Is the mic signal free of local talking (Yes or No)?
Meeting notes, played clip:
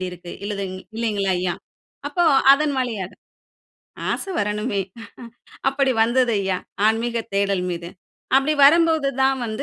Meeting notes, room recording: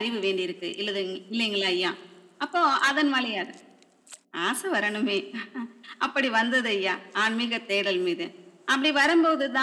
Yes